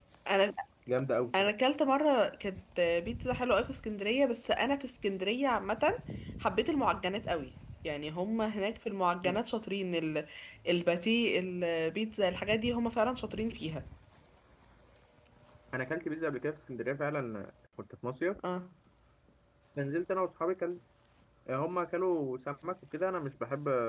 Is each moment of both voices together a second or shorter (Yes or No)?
Yes